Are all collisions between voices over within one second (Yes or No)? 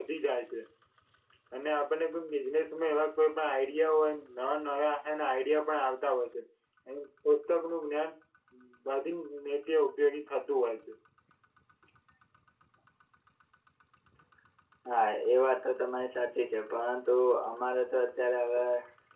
Yes